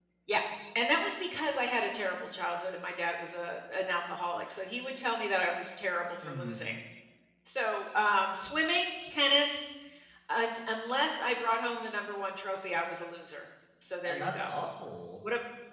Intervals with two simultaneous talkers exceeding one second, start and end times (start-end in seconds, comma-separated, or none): none